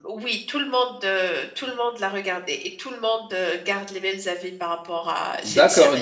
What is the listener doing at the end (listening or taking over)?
taking over